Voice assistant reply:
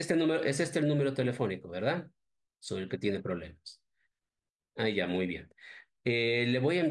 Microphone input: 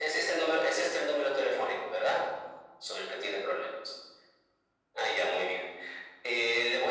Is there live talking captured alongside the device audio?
No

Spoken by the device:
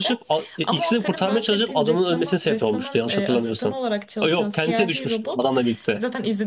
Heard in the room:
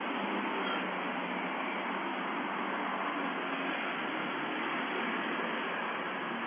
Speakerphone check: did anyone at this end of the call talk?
No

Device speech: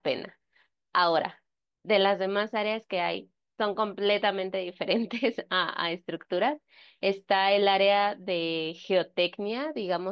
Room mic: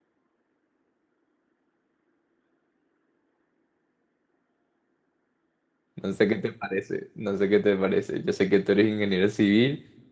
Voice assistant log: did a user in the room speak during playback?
Yes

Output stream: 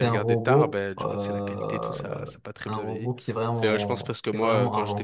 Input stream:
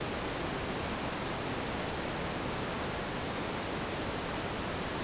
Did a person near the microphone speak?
No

